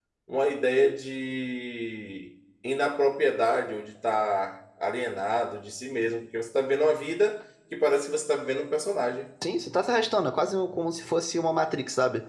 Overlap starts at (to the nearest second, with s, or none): none